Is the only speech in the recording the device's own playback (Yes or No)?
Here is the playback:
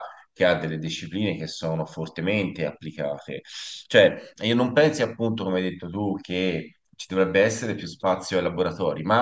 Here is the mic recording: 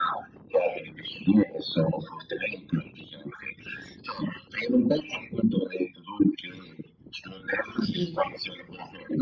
No